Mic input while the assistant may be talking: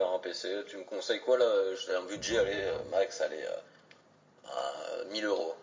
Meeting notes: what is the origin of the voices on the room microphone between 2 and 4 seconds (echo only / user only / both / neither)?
both